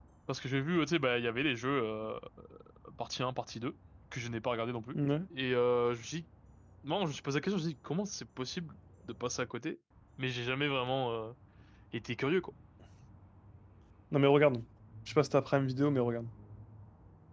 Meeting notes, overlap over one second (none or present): none